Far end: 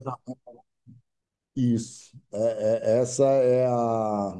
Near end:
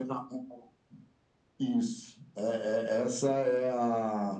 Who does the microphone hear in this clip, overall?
echo only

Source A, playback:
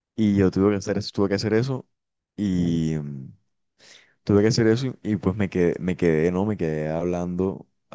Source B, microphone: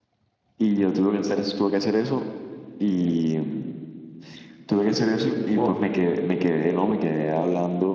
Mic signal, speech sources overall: both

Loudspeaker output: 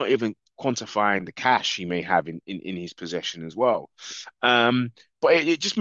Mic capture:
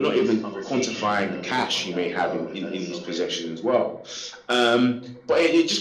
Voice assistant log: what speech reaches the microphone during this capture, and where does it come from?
both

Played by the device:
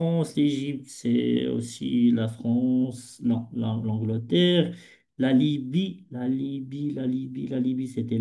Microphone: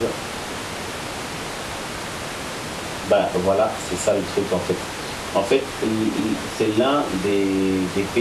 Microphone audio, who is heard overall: user only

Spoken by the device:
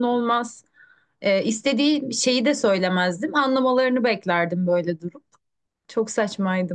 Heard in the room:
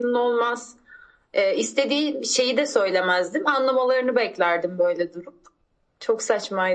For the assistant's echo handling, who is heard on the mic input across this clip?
echo only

